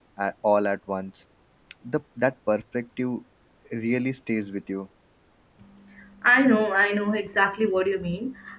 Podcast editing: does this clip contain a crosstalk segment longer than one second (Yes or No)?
No